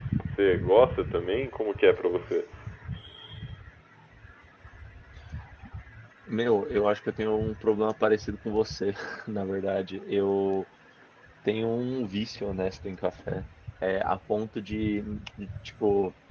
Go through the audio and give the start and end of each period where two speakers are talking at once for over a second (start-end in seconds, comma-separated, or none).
none